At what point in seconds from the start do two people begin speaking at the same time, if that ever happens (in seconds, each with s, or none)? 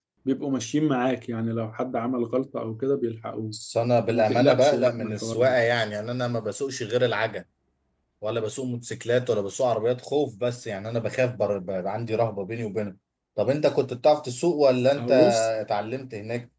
4.1 s